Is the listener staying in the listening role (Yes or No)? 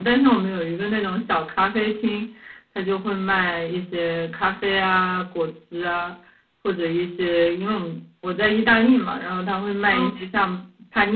Yes